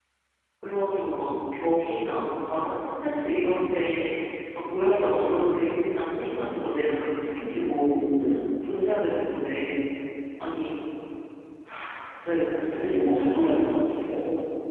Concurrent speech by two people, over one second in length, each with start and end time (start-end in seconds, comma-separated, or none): 12.6-13.8